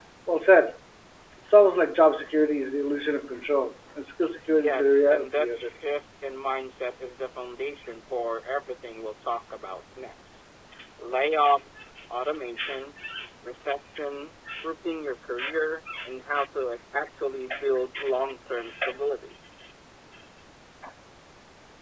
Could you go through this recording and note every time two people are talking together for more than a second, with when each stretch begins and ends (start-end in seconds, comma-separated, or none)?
4.5-5.7